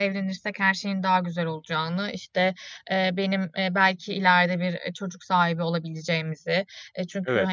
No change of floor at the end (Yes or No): Yes